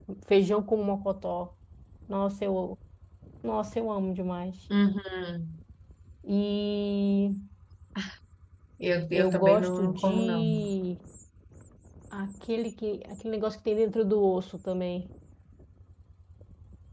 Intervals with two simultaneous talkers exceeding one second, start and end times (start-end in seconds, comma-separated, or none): 9.1-10.5